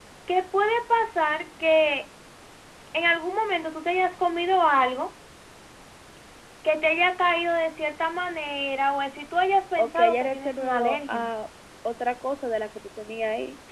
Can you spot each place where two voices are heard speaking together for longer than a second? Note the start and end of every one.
9.8-11.2

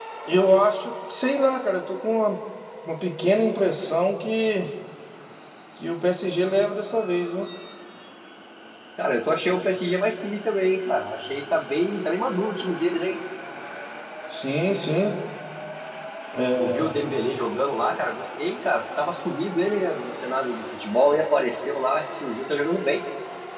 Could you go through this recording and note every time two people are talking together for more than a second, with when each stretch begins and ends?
none

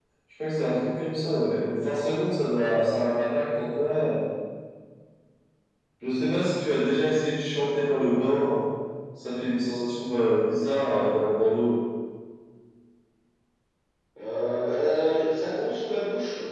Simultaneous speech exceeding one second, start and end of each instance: none

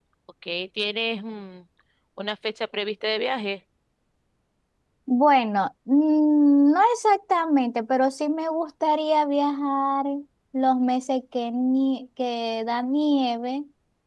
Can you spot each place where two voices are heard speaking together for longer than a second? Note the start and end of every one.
none

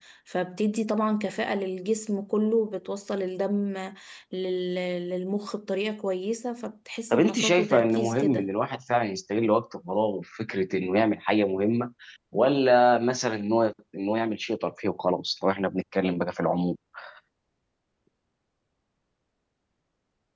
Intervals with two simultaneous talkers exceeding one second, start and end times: 7.1-8.5

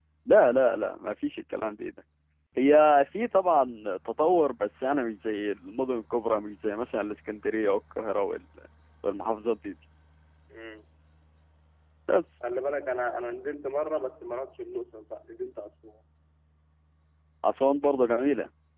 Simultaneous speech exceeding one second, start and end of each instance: none

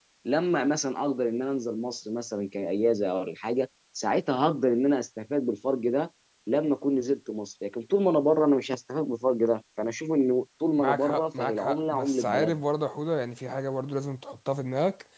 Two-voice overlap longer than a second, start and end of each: 10.8-12.6

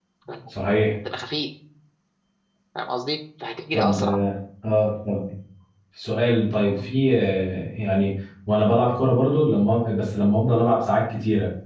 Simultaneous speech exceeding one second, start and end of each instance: none

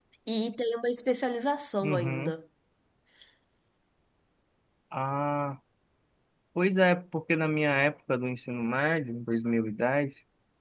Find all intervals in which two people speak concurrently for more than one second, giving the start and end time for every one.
none

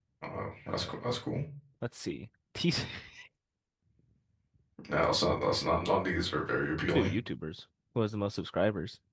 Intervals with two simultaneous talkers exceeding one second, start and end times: none

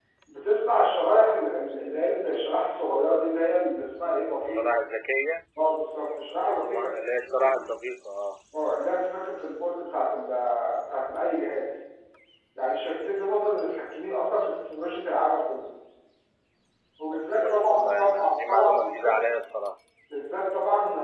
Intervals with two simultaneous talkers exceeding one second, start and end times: 17.1-19.2

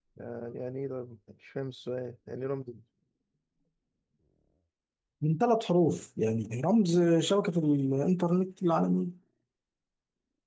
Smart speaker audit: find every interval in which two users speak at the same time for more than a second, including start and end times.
none

